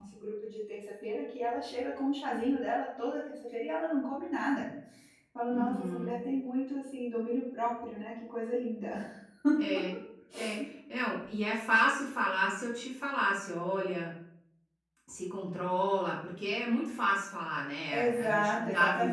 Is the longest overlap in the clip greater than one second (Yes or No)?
Yes